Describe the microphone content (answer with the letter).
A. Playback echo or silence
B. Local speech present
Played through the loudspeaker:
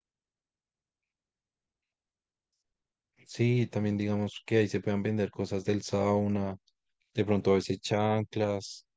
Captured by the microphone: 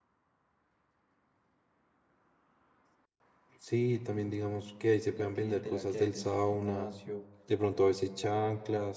B